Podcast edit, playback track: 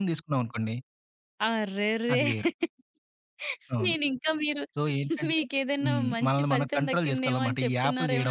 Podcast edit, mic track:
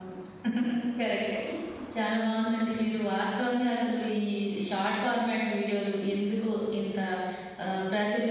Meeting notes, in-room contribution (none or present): present